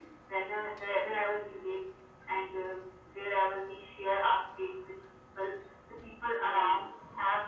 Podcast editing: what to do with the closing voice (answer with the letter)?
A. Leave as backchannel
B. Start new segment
A